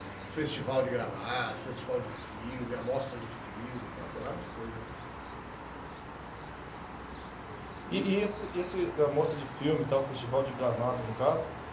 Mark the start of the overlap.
none

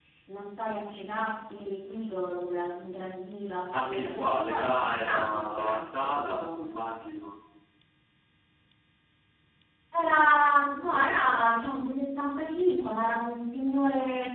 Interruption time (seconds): 3.7 s

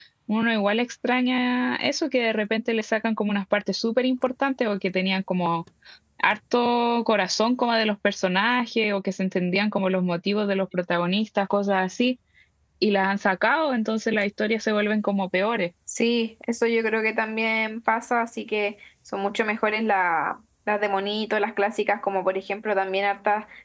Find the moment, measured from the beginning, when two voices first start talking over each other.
none

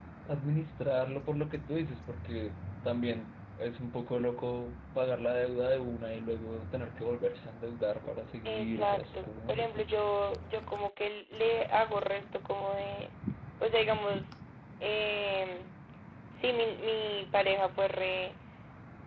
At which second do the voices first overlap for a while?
8.4 s

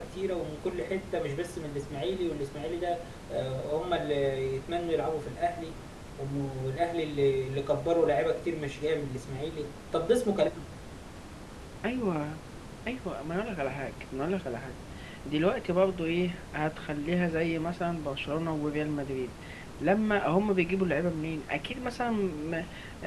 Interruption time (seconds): none

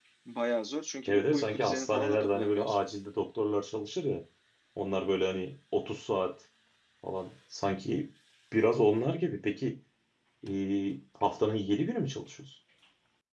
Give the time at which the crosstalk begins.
1.1 s

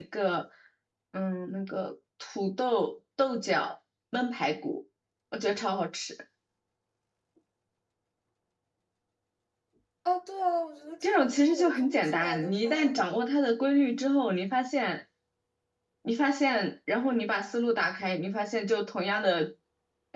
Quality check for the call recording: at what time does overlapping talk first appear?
11.0 s

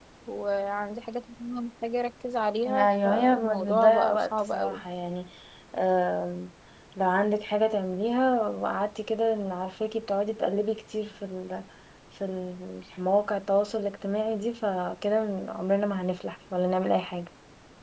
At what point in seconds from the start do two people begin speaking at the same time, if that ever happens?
2.6 s

